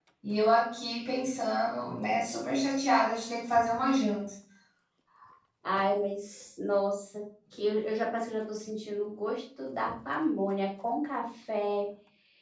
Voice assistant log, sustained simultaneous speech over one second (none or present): none